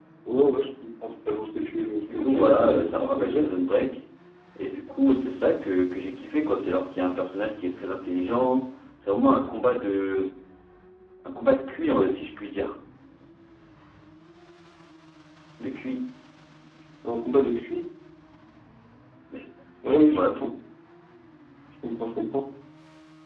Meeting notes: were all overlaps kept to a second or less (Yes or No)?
No